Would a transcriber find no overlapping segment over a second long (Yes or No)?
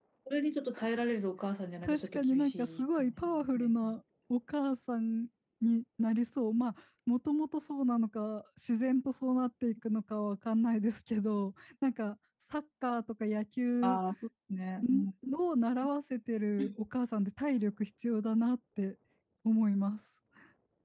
No